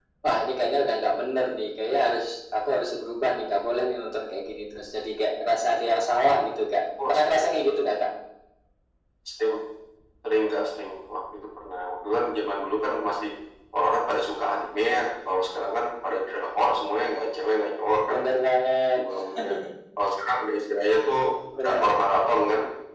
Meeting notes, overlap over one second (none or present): none